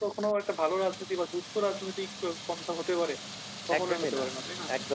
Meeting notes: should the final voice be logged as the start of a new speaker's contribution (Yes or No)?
Yes